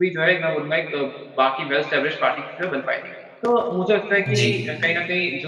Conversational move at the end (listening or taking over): listening